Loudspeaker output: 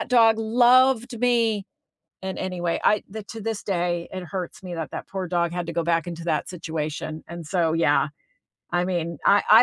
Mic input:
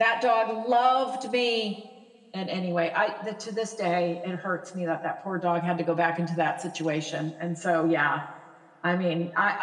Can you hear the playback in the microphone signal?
Yes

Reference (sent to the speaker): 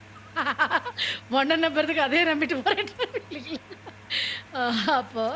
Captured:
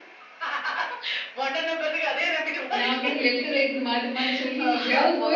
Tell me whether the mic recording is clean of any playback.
No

